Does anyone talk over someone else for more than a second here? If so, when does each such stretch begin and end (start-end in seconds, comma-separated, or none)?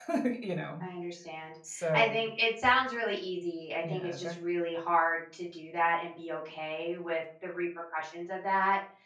none